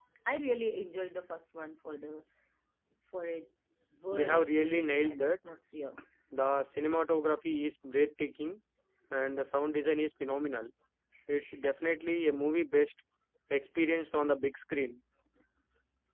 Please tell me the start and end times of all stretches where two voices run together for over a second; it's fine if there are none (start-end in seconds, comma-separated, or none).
4.1-5.3